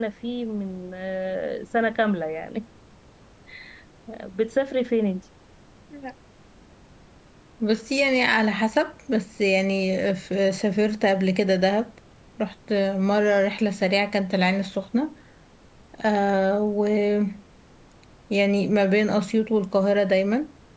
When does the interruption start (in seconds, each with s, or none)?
none